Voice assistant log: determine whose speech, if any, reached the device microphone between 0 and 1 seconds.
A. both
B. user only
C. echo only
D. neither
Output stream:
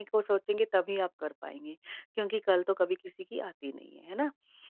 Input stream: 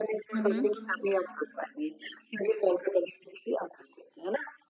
A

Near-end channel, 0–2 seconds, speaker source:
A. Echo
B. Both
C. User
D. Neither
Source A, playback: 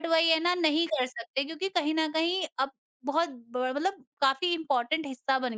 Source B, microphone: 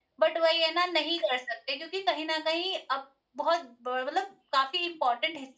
A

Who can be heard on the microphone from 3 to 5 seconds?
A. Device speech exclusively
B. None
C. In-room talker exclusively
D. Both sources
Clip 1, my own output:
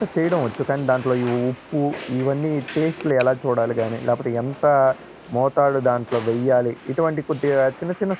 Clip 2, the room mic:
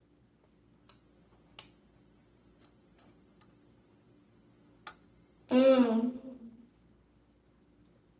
B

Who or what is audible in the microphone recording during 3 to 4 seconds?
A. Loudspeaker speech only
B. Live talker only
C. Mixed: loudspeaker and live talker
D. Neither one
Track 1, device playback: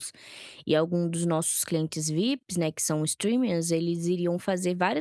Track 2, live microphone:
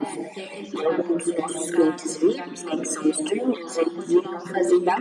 C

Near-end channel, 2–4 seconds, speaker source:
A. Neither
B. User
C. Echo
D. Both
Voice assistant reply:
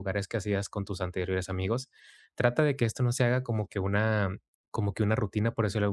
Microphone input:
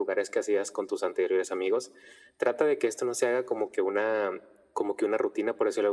C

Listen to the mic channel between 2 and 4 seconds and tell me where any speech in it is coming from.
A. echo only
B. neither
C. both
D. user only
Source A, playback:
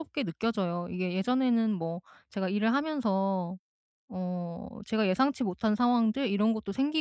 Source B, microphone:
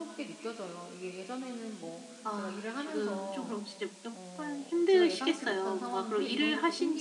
C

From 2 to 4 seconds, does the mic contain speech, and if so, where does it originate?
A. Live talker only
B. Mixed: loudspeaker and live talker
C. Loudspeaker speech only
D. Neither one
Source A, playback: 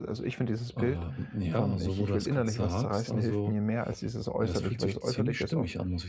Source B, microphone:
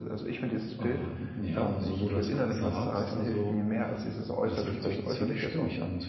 C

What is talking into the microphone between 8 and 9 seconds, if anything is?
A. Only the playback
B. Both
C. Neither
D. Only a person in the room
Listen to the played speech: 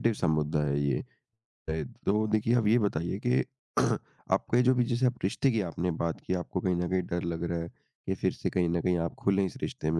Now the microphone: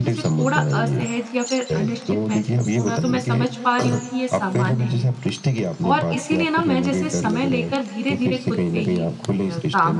B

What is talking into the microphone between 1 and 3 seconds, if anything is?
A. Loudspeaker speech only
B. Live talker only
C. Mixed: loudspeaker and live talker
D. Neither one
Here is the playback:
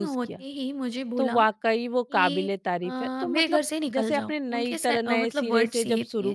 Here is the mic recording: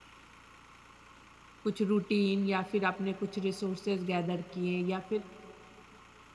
B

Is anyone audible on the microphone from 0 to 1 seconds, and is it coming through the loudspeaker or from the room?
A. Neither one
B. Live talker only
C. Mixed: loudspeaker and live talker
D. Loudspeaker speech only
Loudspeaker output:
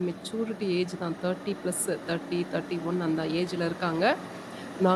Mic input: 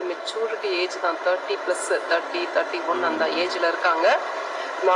D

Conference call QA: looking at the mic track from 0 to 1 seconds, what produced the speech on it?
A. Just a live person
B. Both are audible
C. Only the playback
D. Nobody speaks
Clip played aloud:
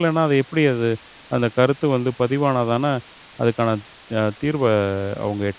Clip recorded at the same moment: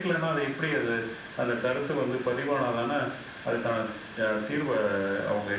C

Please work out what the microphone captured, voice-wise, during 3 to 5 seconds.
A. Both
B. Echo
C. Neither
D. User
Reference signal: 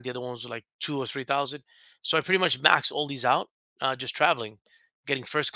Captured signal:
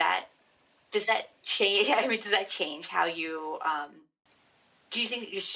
D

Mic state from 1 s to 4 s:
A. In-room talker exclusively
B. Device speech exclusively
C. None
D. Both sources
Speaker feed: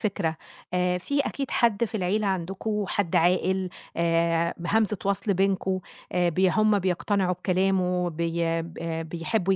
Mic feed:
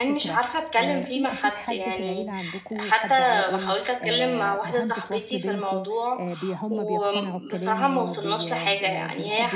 D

